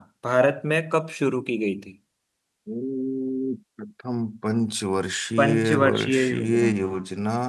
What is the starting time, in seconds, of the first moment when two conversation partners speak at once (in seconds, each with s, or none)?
5.4 s